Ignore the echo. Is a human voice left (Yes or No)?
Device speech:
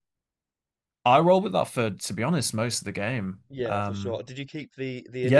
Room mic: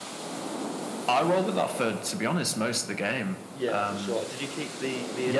No